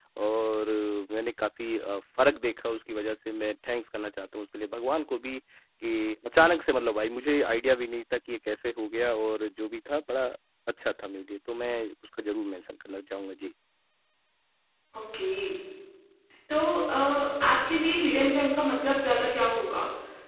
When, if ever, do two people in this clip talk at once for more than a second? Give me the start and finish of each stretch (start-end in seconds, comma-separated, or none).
none